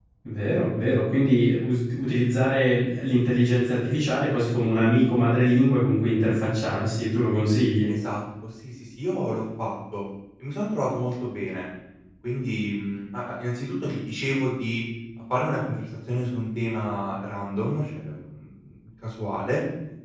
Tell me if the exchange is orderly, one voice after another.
Yes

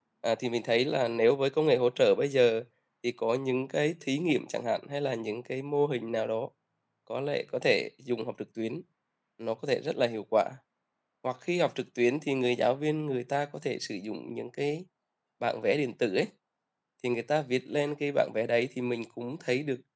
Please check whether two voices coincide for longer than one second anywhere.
No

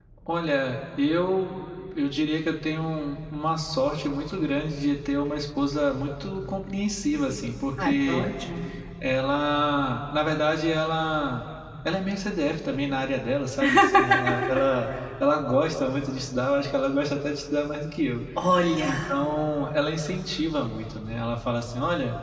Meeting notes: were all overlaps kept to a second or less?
Yes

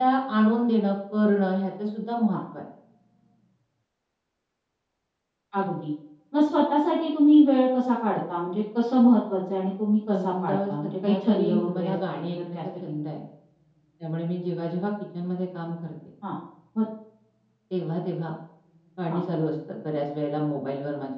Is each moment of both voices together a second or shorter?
No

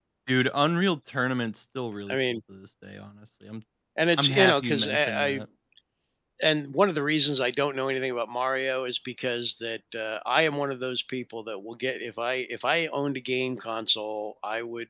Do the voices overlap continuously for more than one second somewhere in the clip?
Yes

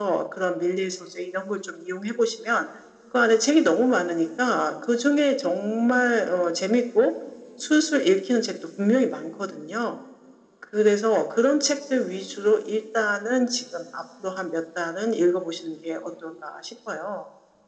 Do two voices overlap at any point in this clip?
No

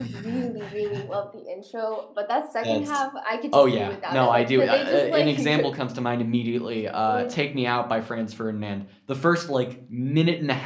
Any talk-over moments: Yes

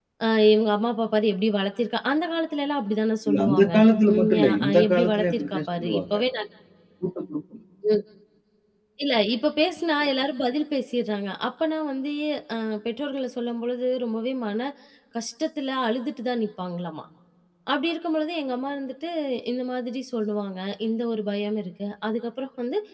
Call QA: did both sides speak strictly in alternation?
No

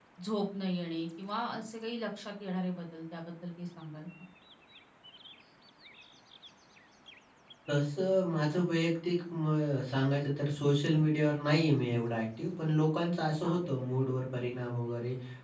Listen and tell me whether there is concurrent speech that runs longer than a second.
No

